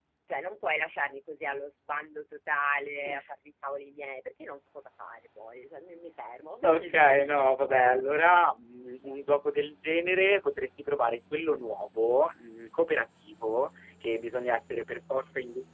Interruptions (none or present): present